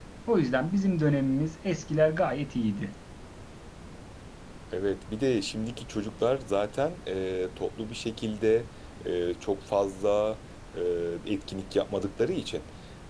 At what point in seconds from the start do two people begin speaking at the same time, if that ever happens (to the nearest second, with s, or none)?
none